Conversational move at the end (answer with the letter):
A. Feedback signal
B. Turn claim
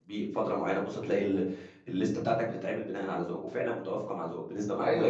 B